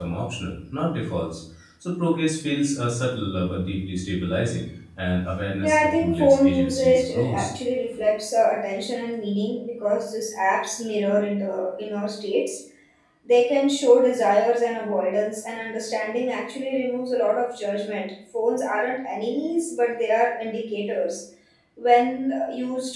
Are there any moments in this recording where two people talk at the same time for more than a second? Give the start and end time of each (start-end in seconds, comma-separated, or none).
5.6-7.5